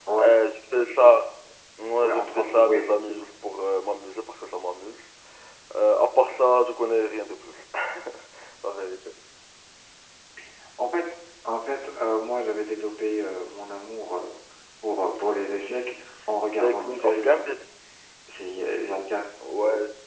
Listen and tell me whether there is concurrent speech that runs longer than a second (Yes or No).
Yes